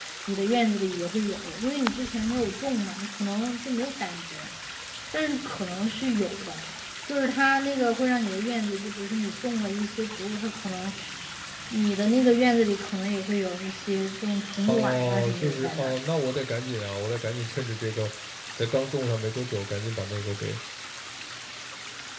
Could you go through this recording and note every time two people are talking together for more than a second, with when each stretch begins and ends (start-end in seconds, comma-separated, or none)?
14.7-15.9